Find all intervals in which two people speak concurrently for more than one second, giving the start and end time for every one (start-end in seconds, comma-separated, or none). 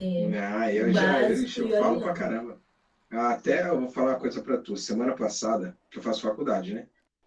0.7-2.2